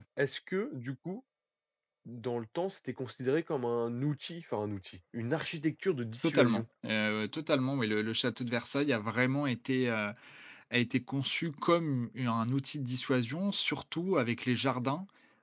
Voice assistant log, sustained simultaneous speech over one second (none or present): none